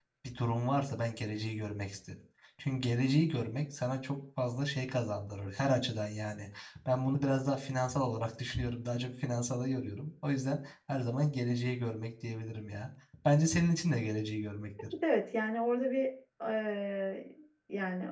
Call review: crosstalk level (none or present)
none